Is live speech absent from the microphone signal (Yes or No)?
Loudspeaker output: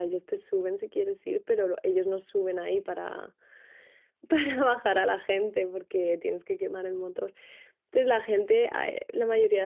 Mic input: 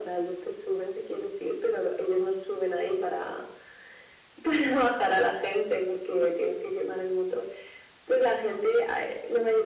Yes